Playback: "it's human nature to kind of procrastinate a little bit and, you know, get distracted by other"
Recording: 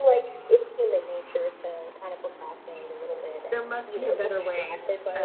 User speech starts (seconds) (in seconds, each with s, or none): 3.5 s